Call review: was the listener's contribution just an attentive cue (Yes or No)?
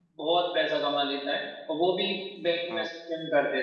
Yes